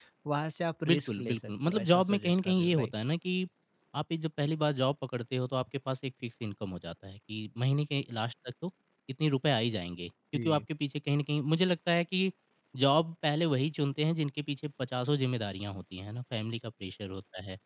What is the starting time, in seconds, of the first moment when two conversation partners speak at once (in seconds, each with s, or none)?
0.8 s